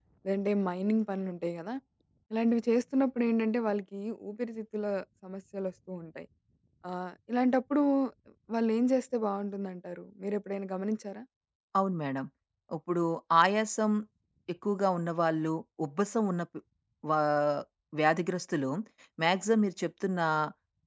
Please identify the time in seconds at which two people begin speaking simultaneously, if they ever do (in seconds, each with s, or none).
none